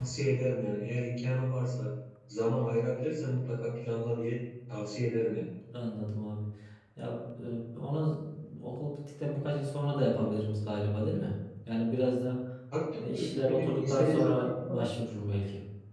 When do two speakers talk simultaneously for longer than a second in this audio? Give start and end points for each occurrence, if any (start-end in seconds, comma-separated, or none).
13.0-14.9